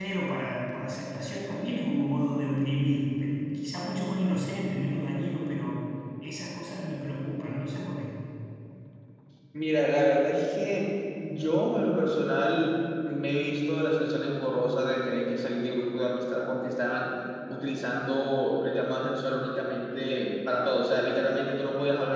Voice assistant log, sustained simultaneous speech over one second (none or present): none